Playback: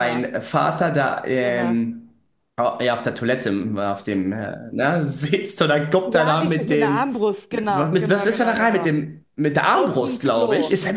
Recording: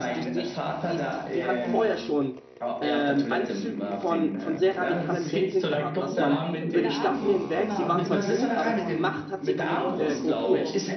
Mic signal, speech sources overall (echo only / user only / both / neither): both